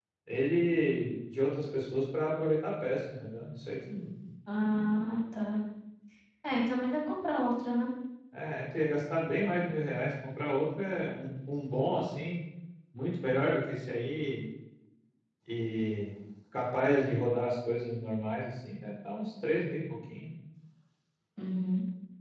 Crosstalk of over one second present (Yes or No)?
No